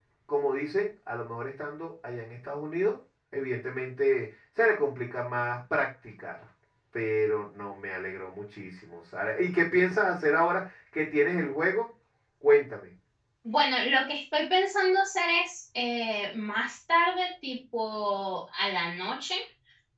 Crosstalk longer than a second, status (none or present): none